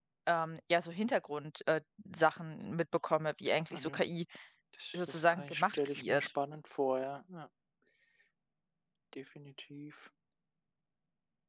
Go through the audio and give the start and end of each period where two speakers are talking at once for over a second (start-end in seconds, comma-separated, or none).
5.0-6.3